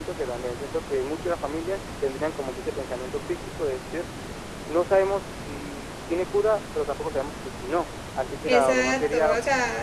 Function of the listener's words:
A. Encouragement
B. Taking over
B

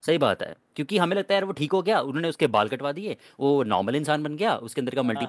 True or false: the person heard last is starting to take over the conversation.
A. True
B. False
B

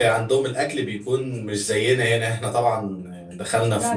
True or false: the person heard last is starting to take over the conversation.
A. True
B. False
B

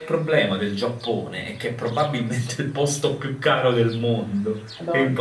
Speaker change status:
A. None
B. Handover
A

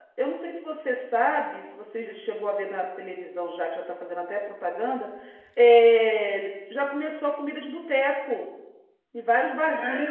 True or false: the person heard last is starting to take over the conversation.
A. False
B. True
B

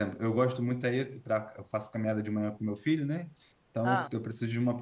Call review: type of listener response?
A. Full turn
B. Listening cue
B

